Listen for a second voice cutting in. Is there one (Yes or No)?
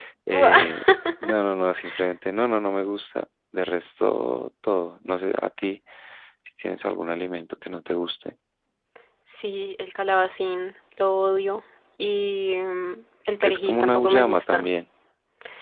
Yes